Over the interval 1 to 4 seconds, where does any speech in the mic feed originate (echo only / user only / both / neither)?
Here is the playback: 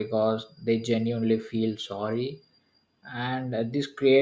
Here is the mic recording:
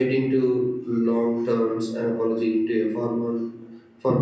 user only